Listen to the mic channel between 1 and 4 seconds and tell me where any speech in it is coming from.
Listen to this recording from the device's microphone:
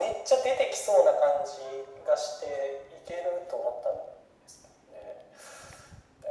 echo only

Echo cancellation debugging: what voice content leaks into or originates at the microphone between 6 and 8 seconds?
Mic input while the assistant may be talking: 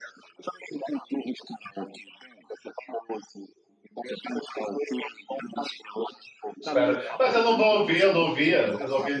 both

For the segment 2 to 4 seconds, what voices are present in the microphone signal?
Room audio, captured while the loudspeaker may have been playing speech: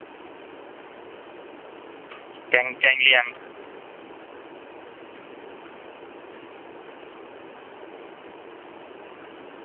user only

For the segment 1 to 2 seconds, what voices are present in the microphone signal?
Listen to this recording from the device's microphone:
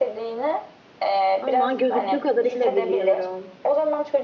both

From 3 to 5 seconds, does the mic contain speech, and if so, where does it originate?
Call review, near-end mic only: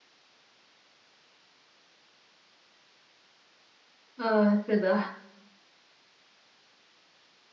user only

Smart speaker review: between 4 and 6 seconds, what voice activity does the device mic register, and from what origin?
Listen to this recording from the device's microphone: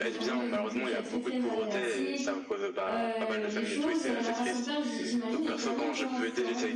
both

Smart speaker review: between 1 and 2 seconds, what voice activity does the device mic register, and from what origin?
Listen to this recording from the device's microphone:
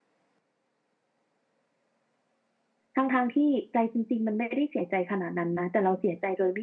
neither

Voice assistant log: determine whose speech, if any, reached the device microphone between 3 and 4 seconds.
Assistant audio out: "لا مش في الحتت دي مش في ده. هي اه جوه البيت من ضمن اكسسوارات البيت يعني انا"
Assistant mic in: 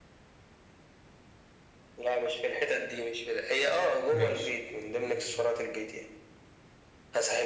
echo only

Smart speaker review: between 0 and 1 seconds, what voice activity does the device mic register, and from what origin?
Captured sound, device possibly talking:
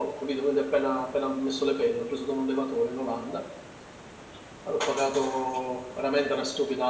echo only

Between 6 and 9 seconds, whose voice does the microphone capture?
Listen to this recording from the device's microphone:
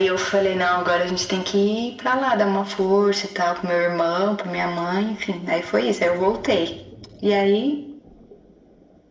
echo only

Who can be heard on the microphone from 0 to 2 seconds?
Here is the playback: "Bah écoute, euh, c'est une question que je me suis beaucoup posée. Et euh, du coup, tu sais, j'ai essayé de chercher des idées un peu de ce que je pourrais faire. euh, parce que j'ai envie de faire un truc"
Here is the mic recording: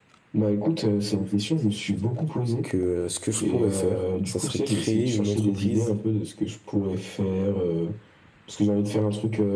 echo only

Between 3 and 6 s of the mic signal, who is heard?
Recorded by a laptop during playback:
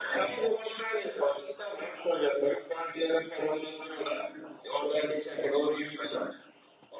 echo only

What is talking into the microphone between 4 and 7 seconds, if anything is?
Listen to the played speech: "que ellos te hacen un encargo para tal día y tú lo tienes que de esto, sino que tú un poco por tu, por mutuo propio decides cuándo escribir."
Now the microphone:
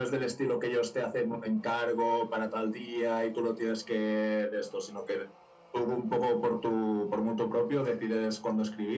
echo only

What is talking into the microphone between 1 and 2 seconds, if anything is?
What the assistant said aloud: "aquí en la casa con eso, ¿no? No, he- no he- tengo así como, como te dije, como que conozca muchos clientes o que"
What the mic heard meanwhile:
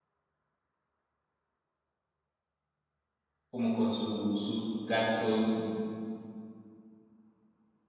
neither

